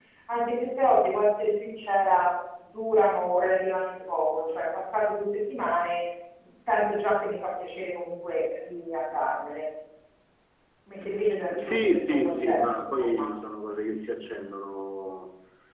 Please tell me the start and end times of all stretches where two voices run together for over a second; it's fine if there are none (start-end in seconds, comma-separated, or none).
11.6-13.3